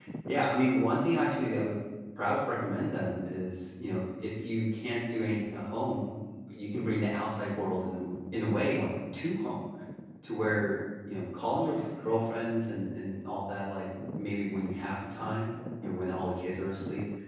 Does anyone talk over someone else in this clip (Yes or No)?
No